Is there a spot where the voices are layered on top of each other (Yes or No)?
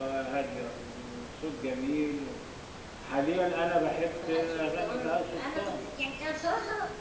Yes